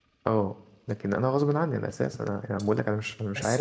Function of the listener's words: taking over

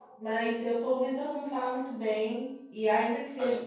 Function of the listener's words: listening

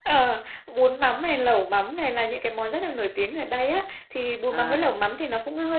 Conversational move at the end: listening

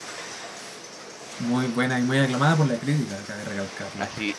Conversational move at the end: taking over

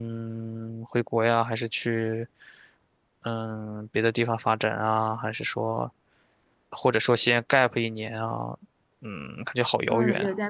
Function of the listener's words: taking over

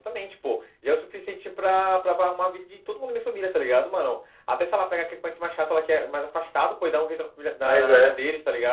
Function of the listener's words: listening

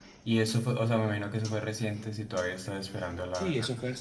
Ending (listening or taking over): taking over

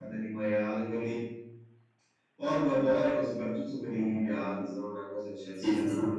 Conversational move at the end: taking over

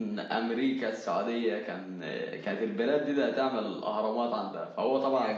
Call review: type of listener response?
taking over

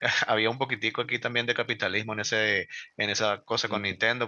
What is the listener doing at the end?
listening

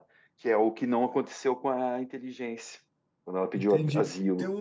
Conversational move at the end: taking over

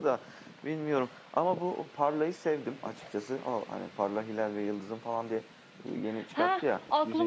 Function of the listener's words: taking over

